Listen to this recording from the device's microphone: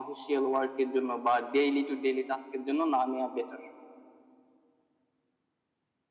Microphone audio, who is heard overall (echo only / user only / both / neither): echo only